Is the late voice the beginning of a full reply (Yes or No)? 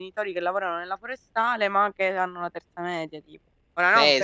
Yes